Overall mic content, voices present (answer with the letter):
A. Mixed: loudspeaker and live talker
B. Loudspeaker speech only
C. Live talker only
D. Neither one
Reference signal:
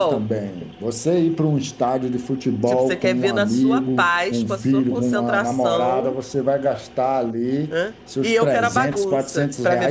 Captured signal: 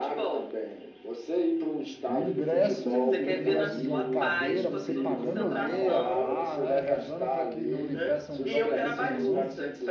A